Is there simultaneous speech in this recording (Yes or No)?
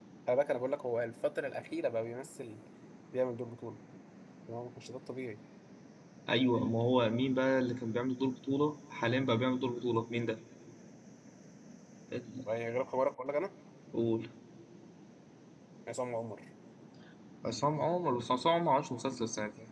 No